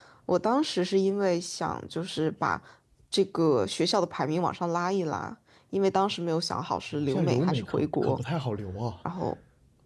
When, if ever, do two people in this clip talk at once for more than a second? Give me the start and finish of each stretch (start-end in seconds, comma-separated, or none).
7.0-8.2